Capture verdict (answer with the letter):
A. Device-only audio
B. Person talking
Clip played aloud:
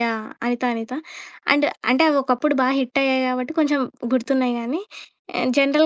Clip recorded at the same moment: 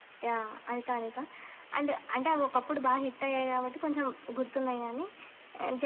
A